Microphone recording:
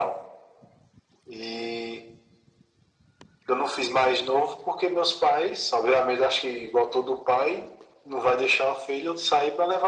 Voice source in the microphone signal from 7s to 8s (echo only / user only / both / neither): echo only